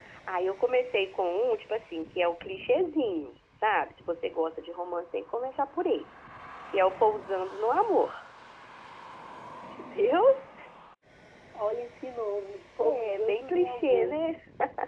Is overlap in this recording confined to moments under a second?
No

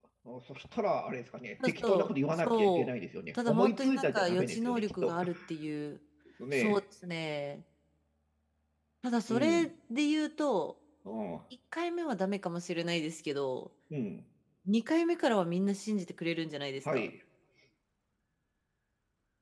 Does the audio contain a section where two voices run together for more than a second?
Yes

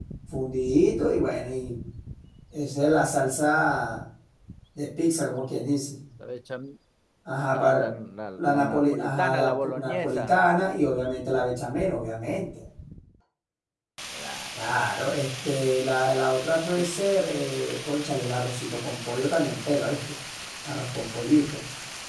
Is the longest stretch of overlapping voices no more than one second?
No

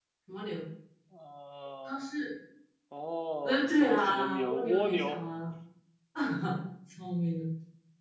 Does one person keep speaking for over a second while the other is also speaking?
Yes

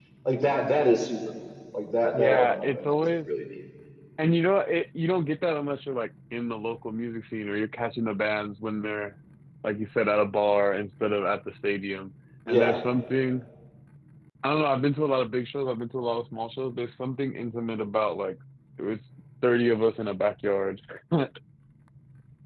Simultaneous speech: Yes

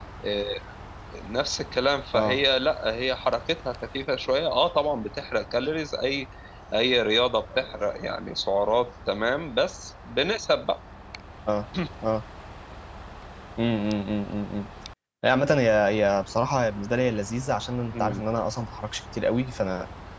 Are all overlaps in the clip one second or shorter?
Yes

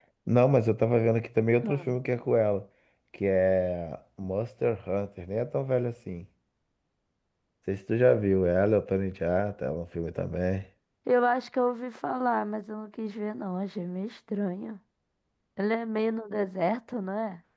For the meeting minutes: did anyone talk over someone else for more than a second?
No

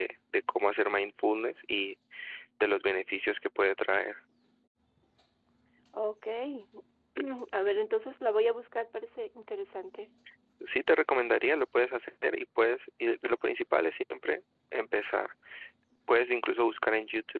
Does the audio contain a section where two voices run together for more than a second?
No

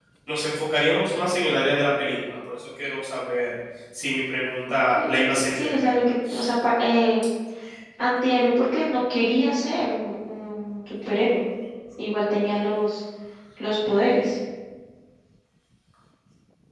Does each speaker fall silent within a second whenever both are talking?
No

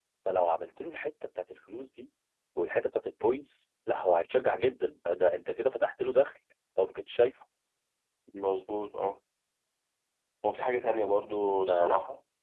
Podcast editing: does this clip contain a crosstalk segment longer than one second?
No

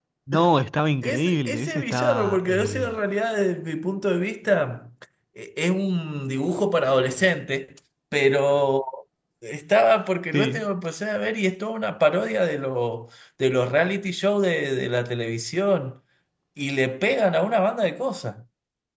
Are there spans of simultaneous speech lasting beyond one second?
Yes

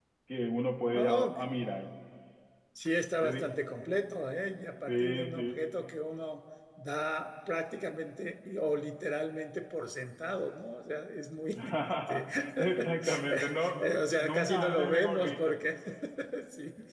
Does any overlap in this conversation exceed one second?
Yes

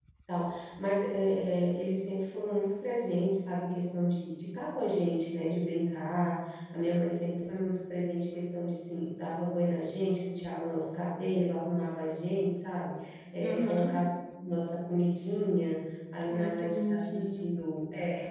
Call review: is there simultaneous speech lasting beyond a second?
Yes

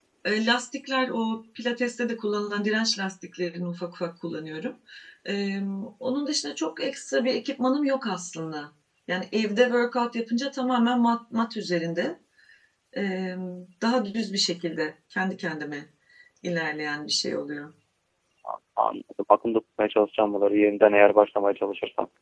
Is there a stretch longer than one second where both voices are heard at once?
No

